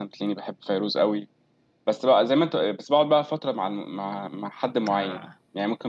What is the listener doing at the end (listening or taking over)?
listening